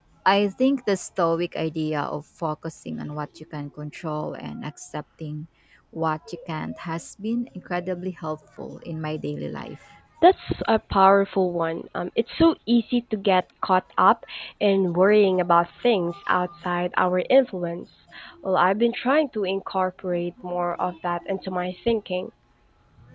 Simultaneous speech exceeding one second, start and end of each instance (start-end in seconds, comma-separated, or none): none